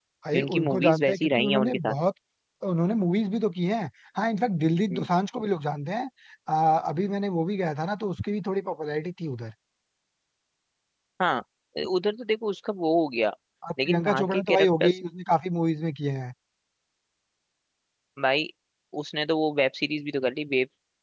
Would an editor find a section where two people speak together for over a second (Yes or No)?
Yes